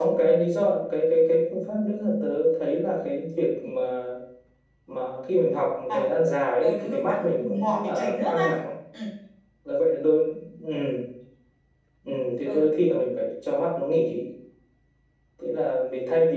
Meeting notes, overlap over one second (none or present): present